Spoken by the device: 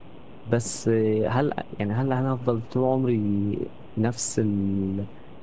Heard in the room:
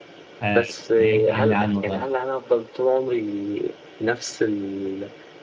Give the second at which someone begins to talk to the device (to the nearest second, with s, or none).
0 s